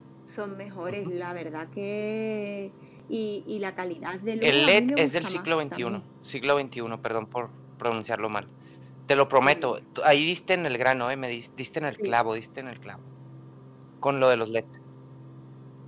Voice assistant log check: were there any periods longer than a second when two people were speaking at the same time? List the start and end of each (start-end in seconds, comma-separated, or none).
4.4-6.0